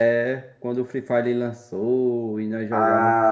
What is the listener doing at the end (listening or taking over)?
taking over